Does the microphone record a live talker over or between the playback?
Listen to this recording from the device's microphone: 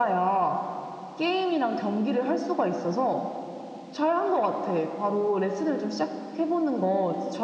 No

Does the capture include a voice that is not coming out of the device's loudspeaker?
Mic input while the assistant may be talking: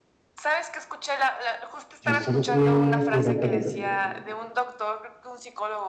Yes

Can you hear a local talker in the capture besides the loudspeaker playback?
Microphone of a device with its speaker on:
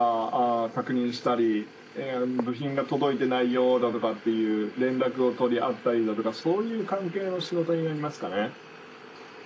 No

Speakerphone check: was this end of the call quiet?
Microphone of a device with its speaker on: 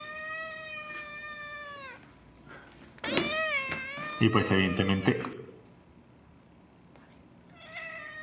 No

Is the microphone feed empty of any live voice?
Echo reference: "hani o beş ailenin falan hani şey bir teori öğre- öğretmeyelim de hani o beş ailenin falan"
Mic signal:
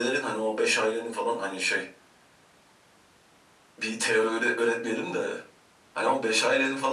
Yes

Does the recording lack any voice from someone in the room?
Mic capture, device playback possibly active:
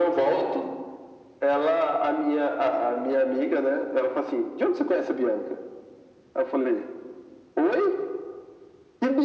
Yes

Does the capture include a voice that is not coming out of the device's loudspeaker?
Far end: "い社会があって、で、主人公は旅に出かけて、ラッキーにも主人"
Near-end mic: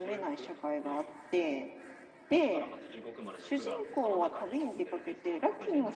Yes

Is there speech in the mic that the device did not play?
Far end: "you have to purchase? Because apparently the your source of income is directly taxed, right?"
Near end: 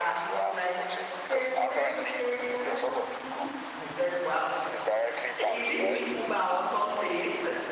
Yes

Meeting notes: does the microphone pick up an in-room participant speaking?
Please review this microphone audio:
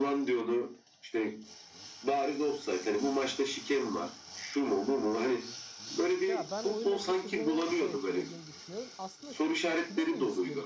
Yes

